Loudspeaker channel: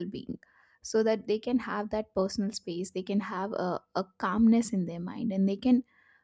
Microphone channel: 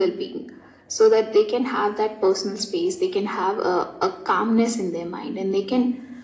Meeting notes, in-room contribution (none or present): none